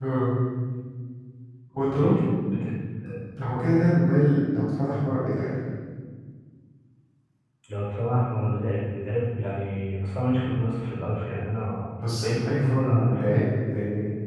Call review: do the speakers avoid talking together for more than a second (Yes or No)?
No